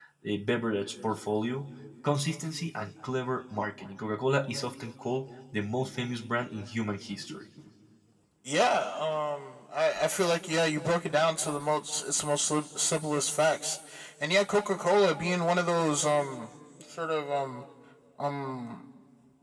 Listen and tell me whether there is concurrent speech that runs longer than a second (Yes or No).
No